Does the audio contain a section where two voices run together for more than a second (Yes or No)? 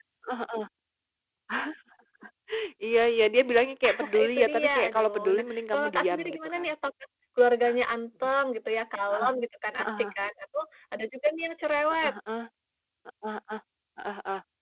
Yes